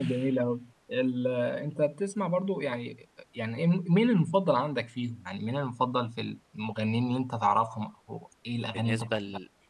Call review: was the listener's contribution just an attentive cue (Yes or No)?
No